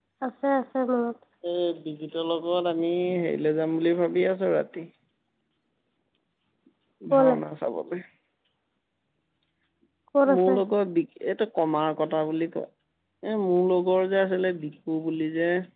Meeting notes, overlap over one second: none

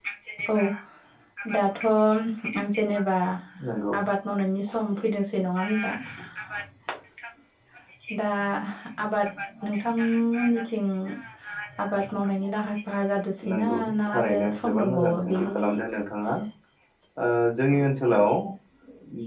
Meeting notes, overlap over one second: present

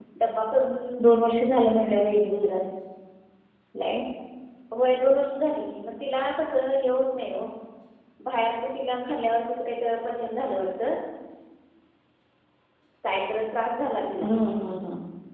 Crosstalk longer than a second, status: none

